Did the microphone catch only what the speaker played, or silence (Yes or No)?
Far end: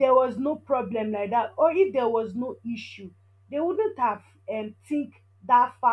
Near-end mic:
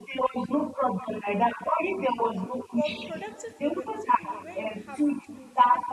No